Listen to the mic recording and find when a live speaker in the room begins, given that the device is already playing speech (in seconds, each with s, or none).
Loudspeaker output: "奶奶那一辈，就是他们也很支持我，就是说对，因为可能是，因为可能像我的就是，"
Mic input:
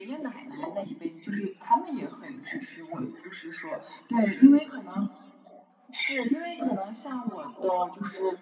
none